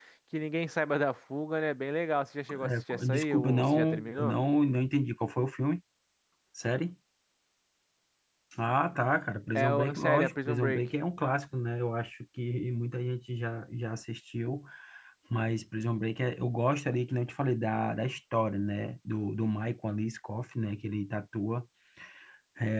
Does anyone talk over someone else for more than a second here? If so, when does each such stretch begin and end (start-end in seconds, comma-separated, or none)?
2.6-4.4, 9.6-10.9